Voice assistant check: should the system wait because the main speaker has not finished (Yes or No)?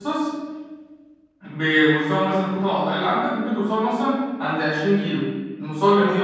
Yes